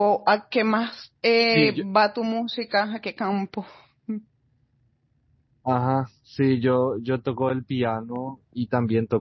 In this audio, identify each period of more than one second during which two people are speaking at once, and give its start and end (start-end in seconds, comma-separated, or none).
none